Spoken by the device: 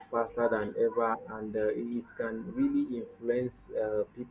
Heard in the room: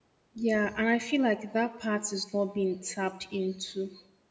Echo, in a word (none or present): none